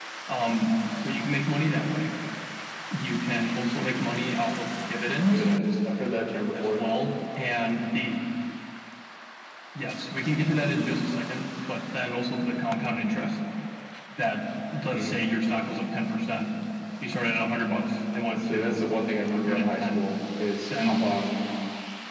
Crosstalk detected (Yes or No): Yes